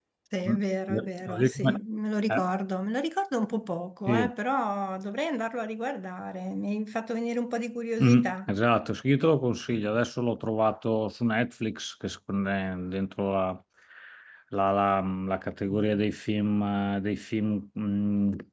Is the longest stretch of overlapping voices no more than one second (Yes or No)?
Yes